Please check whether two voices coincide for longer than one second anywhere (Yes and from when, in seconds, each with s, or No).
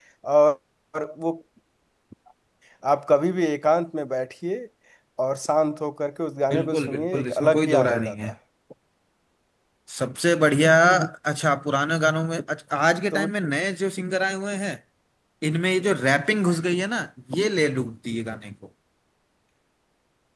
Yes, from 6.5 s